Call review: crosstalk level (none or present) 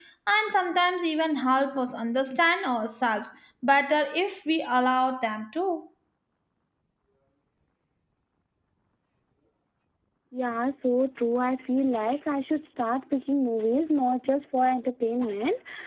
none